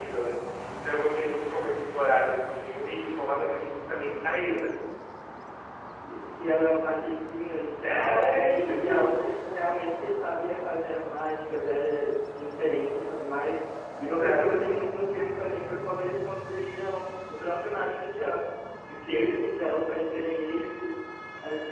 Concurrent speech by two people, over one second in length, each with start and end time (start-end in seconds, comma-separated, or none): 7.8-9.1